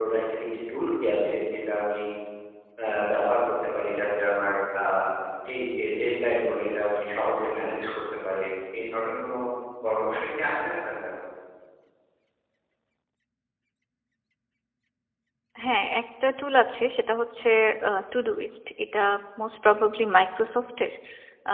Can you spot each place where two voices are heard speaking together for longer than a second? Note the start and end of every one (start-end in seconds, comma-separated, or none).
none